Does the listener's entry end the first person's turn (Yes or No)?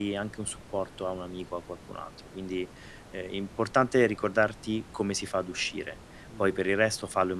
No